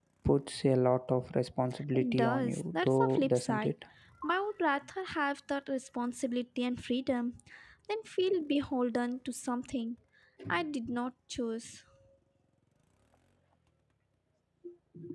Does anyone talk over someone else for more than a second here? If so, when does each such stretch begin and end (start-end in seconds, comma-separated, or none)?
1.9-3.7